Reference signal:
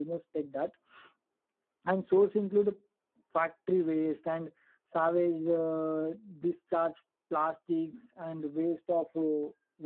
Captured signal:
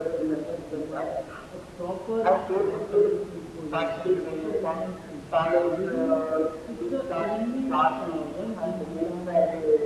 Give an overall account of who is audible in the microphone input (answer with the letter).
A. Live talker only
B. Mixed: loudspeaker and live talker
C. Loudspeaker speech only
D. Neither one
B